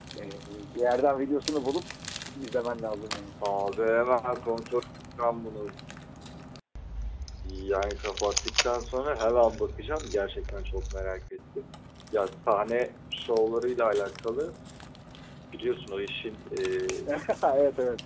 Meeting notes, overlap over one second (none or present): none